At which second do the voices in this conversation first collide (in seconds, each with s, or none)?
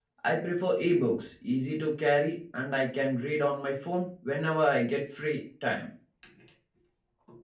none